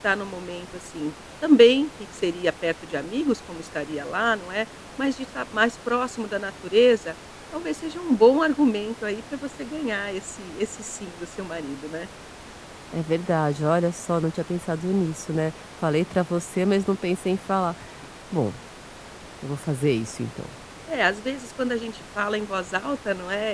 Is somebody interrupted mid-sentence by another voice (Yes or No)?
No